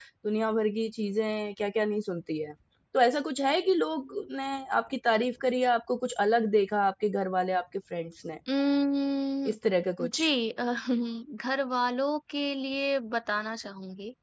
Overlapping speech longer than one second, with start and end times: none

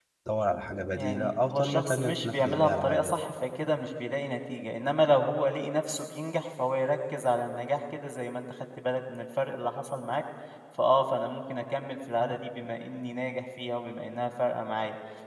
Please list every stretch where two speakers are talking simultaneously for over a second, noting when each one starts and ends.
1.0-3.1

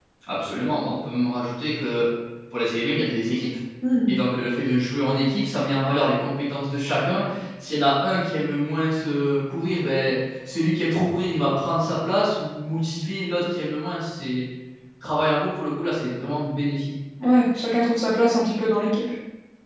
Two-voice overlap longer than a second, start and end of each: none

